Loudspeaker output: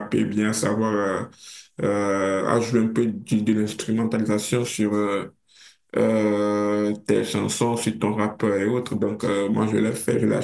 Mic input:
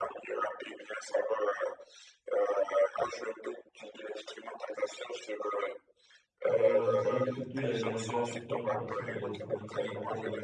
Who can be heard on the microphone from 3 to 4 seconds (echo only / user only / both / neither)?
echo only